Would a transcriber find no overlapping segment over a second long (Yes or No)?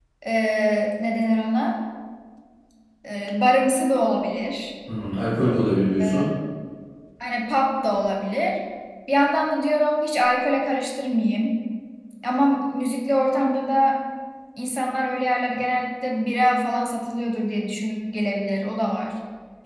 Yes